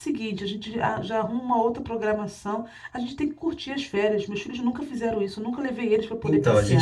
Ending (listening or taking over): taking over